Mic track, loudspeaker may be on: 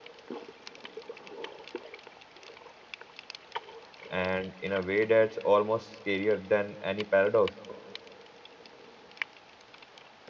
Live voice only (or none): and in a way that's almost scarier than any paradox